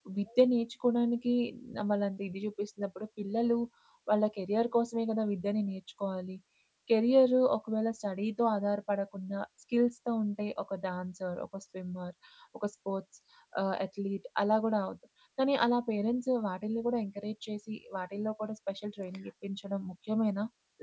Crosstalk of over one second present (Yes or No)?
No